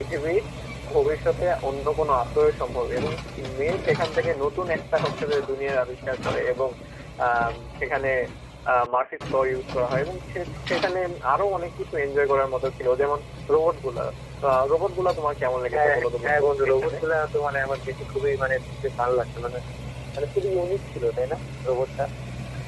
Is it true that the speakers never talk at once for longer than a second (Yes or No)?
No